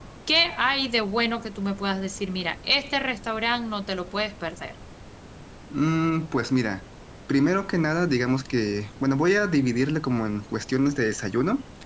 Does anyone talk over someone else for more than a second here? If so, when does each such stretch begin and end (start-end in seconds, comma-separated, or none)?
none